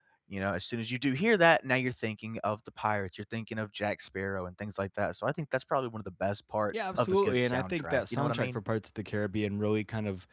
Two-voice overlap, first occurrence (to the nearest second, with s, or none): 7 s